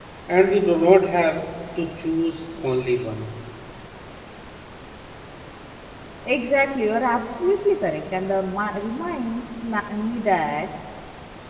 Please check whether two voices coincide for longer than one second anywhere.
No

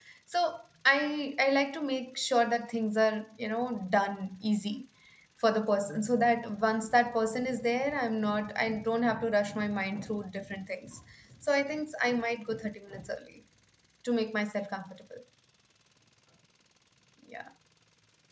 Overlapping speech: No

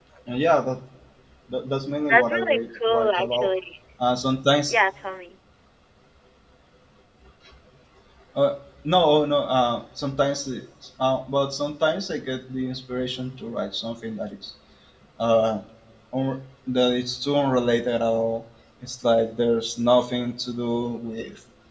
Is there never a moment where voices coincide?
No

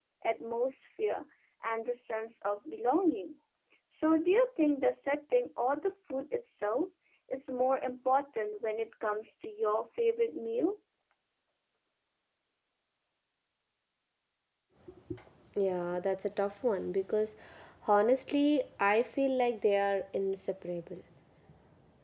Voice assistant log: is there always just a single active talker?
Yes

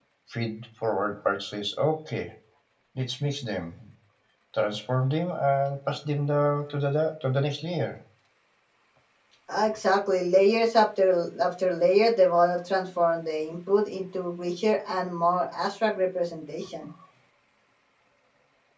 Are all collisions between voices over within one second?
Yes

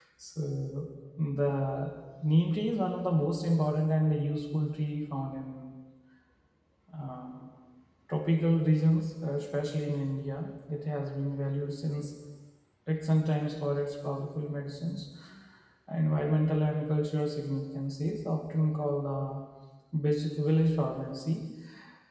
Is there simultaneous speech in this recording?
No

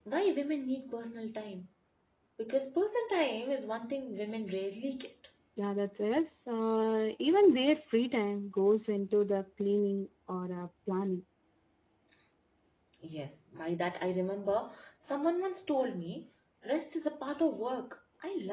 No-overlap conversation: Yes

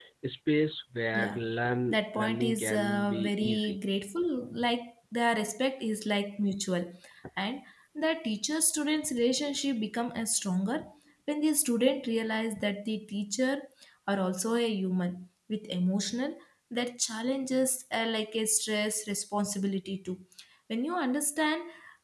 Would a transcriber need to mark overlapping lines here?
Yes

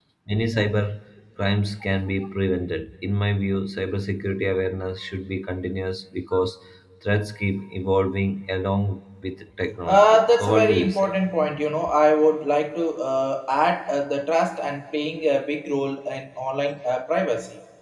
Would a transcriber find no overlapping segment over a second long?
No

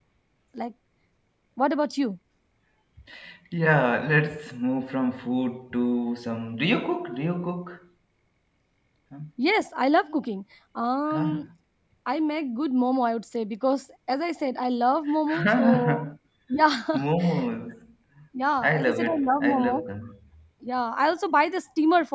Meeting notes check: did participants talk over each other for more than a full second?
Yes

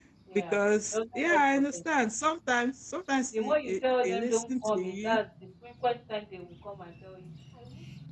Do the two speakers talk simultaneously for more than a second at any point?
Yes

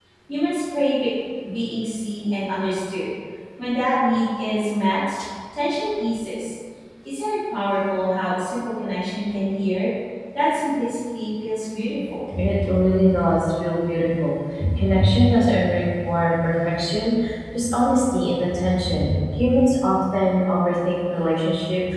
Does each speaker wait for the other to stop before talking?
Yes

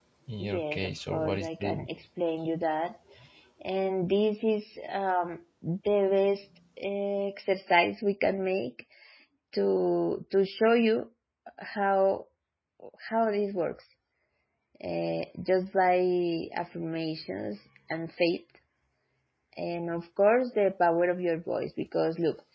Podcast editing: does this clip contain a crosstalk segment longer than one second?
Yes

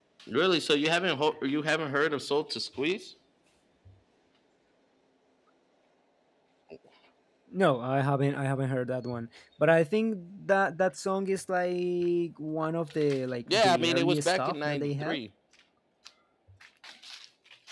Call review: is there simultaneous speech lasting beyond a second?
Yes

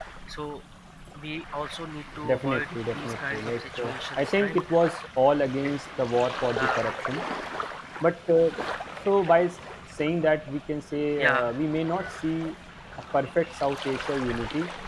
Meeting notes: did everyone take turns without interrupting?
No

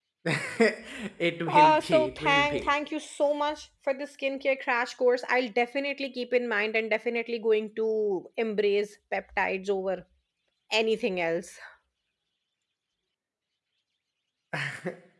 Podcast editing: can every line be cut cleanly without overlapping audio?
No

